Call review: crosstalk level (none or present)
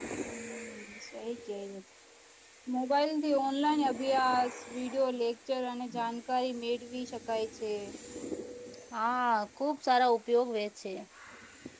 none